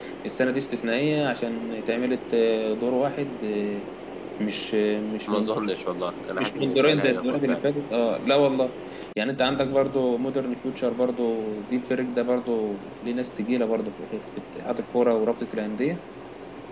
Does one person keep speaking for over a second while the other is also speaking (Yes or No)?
Yes